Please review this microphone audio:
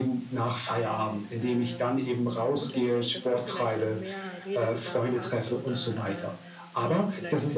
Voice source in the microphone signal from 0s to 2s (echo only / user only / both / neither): both